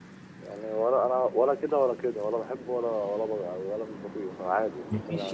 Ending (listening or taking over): taking over